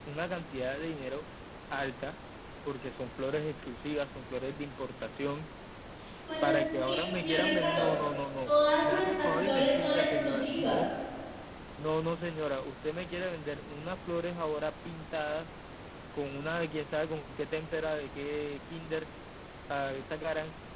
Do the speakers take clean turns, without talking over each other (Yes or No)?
No